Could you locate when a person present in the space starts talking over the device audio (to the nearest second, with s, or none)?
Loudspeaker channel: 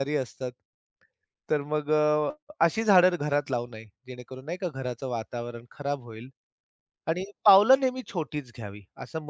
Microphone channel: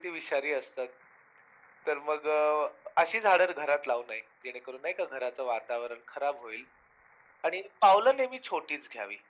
none